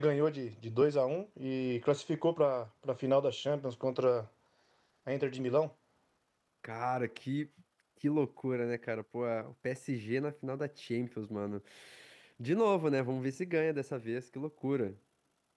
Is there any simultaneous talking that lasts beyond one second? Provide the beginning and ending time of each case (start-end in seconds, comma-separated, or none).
none